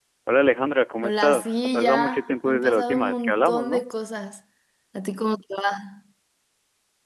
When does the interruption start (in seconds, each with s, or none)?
1.0 s